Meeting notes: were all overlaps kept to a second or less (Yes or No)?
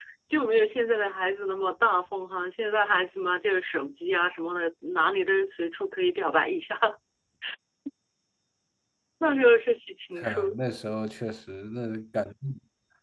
Yes